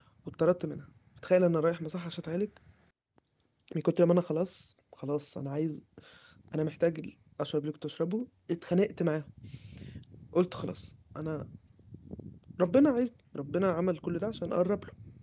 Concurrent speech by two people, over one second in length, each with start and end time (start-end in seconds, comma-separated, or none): none